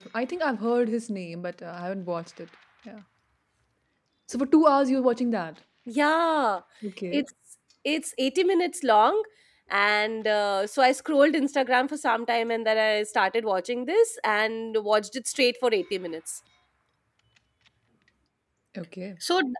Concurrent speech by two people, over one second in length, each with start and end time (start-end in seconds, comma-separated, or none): none